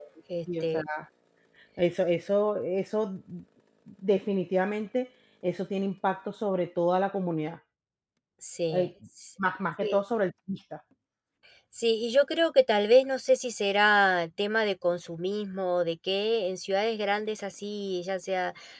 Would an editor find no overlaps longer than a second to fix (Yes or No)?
Yes